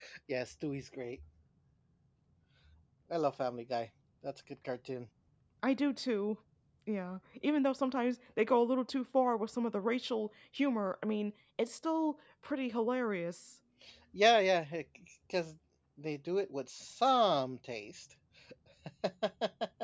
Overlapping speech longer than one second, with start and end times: none

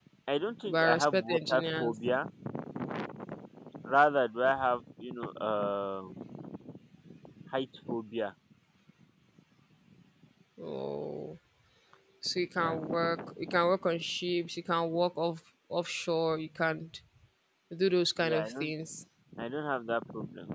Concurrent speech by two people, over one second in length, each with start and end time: 0.7-1.9

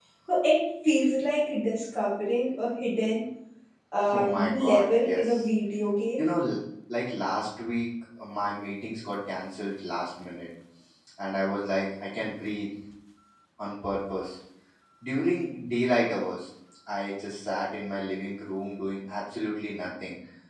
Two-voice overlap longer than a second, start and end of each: 4.1-5.5

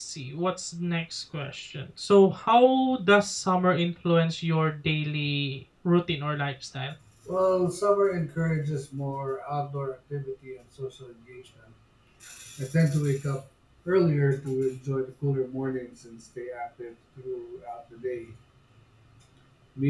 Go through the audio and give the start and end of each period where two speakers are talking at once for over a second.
none

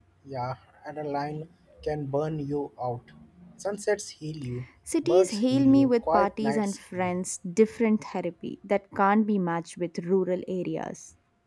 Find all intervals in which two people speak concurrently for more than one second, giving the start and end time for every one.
5.0-7.2

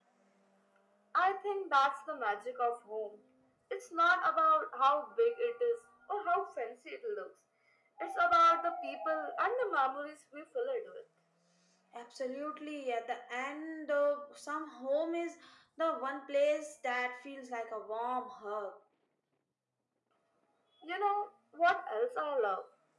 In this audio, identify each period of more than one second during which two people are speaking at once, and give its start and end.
none

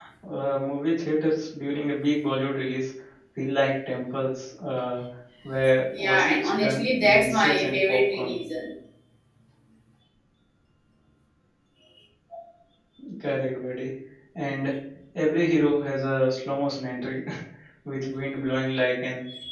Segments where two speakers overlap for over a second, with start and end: 6.0-8.4

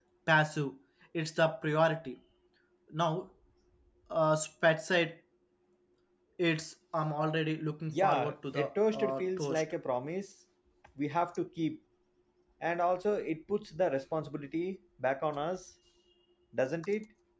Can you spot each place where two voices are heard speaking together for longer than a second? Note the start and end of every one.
7.9-9.6

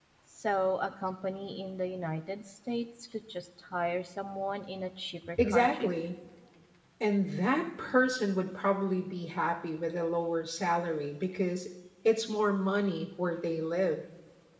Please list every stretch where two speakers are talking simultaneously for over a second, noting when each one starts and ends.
none

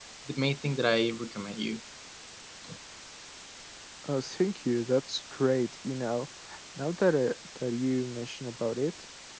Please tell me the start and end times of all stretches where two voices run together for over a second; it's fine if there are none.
none

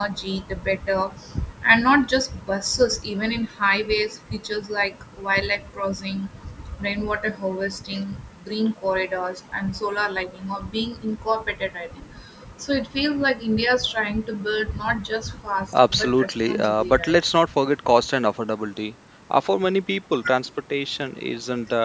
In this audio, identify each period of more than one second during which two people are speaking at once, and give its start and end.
15.7-17.2

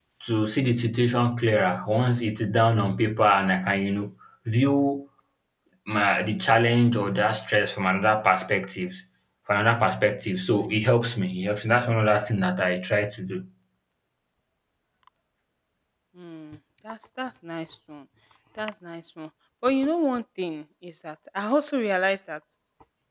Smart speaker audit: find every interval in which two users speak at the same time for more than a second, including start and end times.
none

